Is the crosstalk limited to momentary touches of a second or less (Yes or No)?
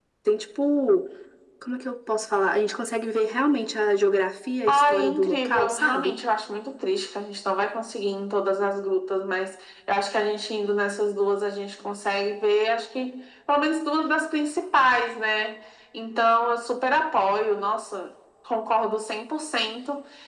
No